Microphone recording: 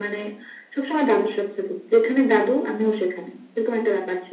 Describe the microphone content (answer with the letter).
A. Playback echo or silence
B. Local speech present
A